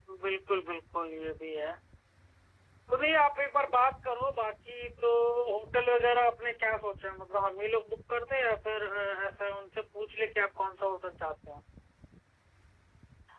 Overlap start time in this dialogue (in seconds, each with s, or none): none